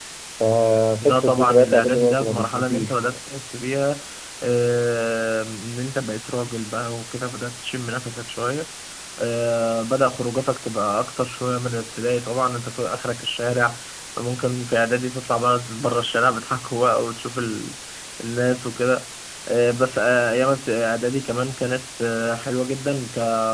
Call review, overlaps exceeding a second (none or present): present